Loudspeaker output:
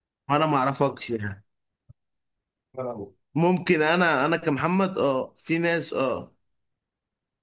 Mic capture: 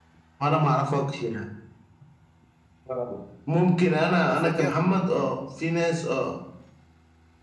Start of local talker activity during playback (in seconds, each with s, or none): 4.3 s